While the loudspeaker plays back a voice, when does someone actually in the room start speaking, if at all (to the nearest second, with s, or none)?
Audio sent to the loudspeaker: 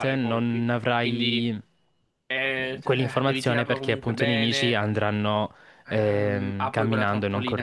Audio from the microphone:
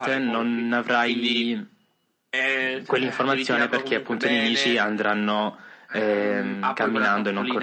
none